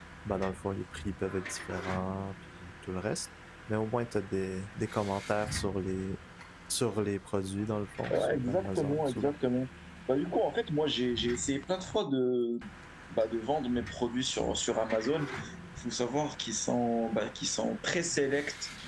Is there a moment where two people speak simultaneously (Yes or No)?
Yes